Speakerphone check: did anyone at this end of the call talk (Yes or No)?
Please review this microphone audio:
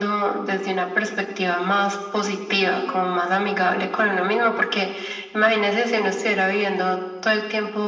No